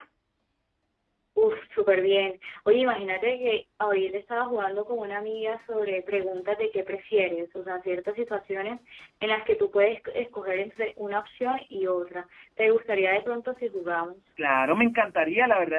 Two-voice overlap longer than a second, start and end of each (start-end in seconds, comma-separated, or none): none